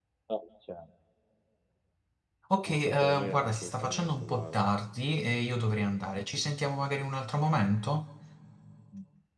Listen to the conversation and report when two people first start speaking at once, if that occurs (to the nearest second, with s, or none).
3 s